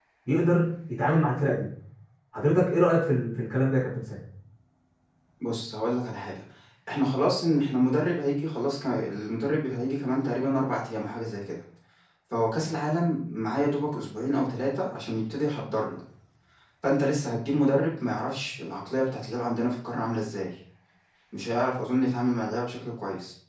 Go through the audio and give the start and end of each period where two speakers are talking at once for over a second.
none

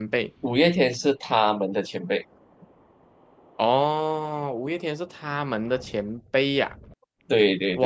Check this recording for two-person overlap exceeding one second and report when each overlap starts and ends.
none

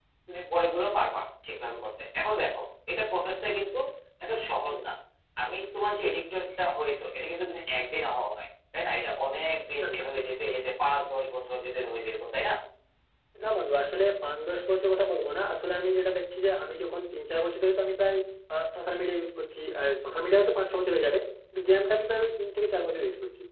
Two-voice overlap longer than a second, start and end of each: none

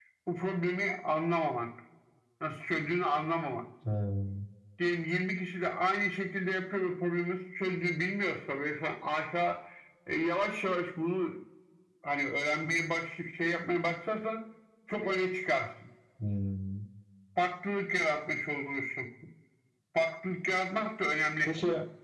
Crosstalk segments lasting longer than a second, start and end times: none

